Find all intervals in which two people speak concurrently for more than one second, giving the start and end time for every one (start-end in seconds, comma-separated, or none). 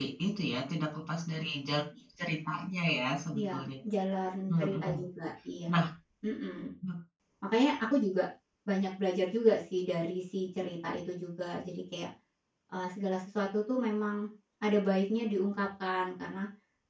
none